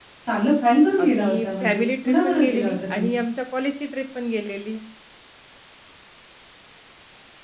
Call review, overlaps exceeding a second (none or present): present